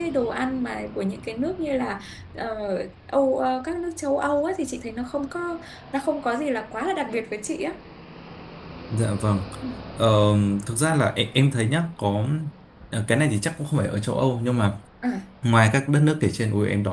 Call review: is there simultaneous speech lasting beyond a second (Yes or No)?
No